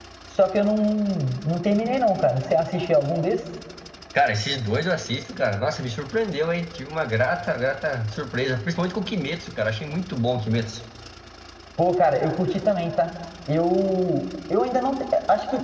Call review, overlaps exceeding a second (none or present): none